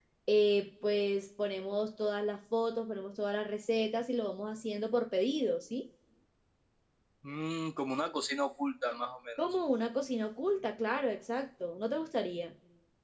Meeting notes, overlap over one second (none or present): none